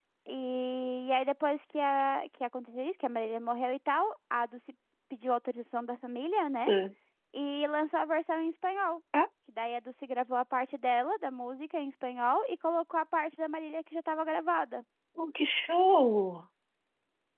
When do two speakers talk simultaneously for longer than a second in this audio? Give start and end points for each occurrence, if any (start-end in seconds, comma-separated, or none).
none